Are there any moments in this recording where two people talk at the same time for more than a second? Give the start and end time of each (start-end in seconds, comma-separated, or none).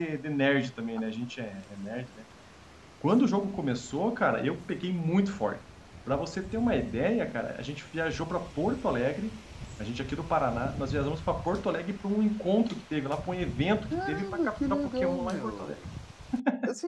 13.8-15.7